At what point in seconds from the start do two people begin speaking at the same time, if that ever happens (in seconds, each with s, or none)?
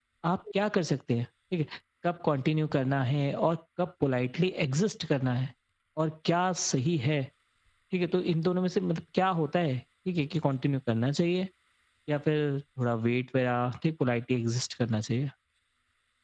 none